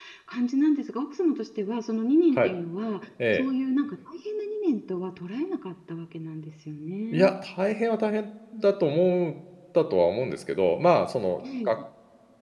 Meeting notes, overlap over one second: none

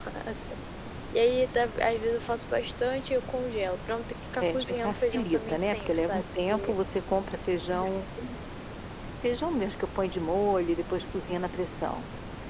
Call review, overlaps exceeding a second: present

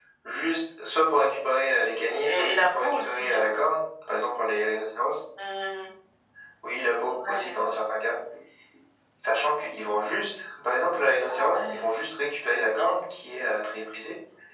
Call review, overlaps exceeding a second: present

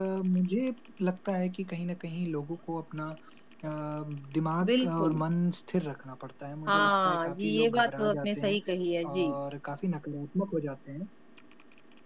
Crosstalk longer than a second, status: present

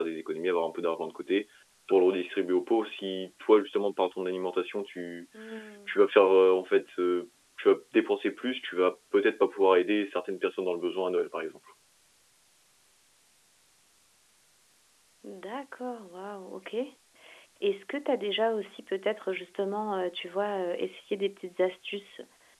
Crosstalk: none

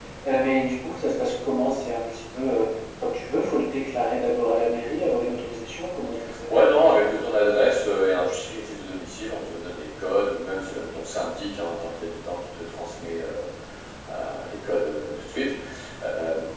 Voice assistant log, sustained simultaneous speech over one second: none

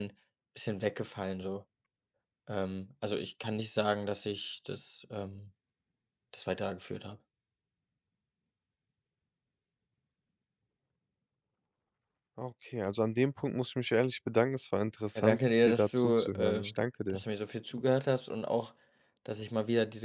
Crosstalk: present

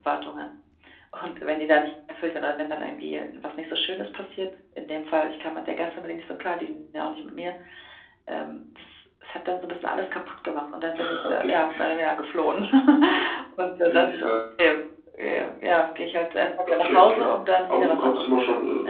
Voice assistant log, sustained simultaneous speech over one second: present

